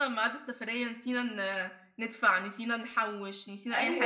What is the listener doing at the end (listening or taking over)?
taking over